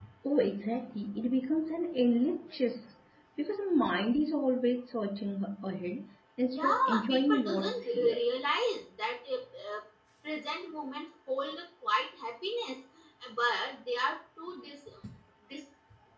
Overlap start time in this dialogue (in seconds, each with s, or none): 6.5 s